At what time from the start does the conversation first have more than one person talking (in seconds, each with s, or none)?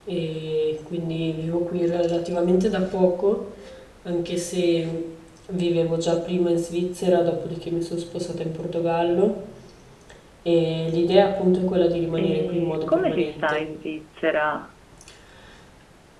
12.1 s